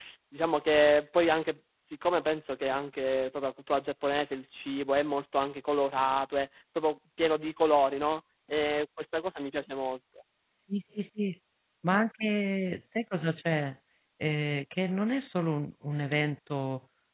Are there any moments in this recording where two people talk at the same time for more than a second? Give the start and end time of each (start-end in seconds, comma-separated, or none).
none